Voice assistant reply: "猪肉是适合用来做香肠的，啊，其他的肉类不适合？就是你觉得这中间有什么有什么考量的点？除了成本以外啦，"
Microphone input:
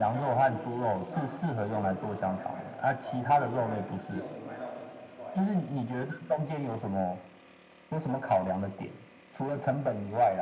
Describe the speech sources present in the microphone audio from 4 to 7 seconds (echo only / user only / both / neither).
both